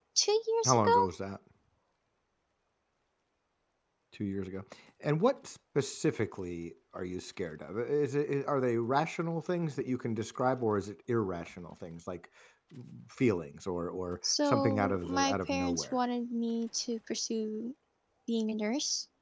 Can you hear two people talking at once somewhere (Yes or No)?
Yes